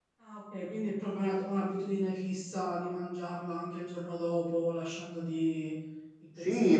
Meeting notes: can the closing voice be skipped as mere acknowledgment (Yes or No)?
No